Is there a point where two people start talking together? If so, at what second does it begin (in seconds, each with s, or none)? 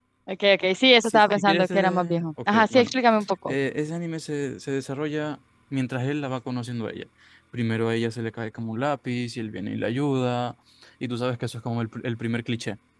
1.0 s